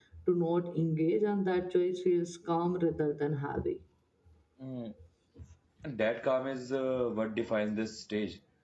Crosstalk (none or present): none